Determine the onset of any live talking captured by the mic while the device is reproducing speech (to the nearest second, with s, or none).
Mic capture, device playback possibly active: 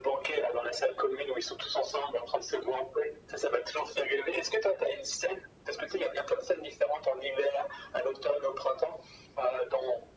none